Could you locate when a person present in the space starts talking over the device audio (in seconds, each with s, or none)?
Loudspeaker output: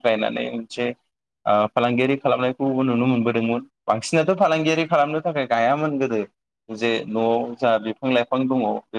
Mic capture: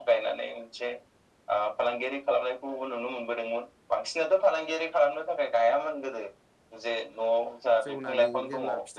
7.8 s